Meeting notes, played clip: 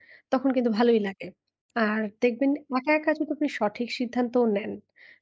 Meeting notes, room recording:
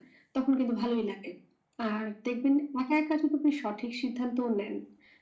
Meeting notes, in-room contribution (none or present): none